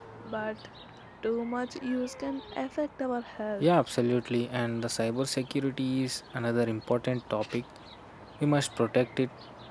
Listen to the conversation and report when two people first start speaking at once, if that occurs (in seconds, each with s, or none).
none